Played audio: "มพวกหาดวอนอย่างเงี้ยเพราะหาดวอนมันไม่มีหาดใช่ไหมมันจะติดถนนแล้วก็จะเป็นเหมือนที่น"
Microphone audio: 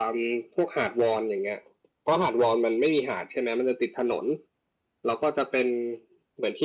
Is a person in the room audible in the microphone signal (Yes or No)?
No